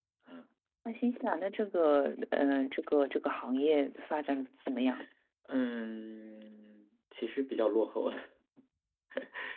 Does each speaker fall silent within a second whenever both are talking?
Yes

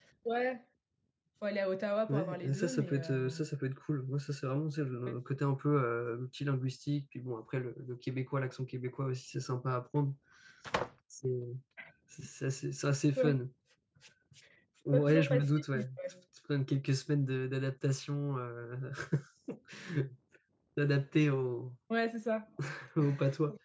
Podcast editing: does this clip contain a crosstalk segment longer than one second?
Yes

